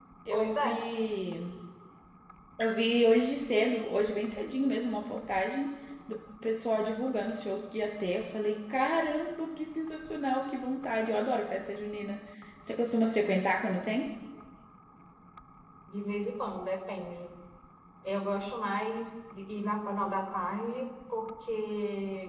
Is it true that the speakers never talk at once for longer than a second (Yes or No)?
Yes